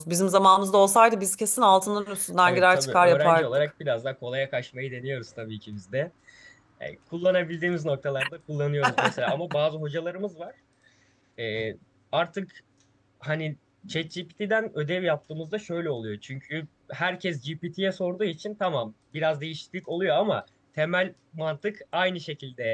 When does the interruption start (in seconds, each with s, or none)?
2.5 s